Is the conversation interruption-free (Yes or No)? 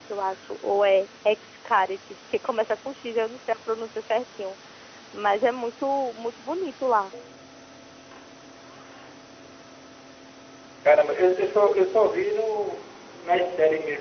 Yes